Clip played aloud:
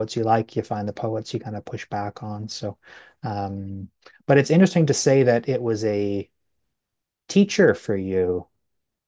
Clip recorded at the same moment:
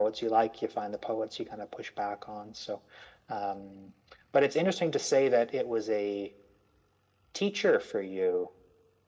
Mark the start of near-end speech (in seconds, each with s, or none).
none